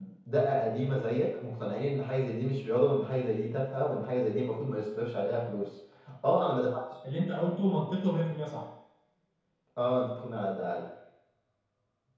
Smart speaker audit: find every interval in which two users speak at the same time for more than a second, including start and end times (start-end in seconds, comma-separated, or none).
none